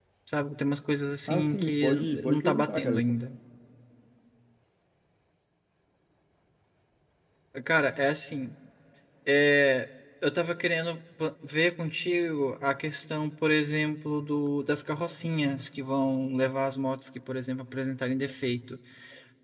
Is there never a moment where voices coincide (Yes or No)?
No